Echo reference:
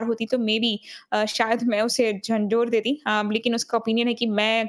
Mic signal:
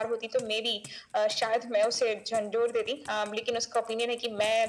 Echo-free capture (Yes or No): No